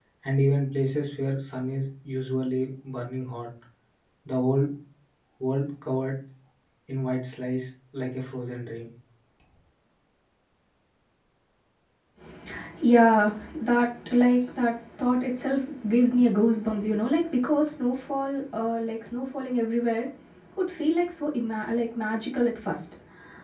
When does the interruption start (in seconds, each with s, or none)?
none